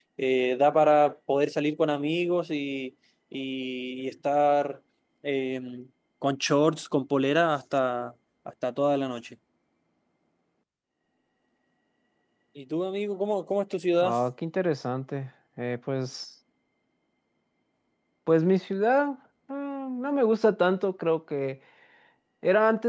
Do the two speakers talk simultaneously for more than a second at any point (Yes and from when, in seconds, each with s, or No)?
No